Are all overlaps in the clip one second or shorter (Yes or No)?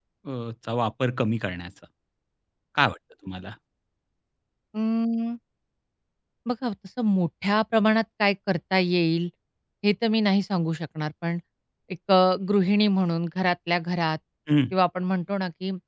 Yes